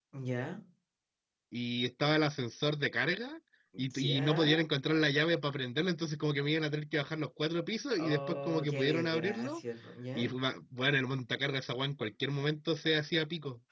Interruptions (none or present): present